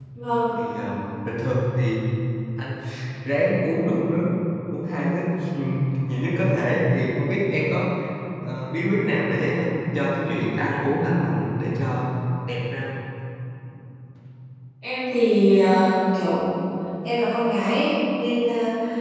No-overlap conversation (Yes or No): Yes